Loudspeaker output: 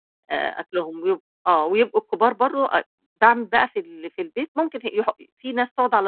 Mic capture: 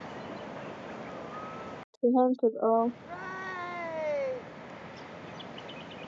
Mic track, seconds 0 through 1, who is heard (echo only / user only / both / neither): neither